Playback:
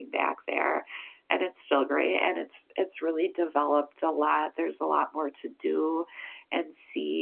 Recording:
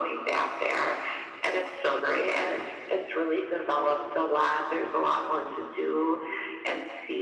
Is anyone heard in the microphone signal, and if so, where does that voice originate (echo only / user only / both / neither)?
echo only